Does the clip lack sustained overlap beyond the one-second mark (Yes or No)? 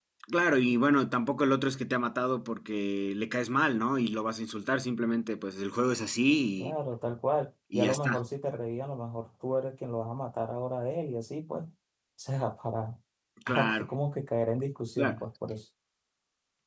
Yes